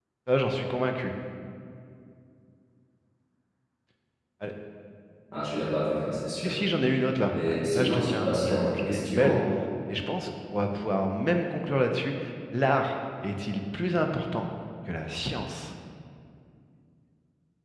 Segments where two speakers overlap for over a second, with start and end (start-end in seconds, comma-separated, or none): 7.3-9.4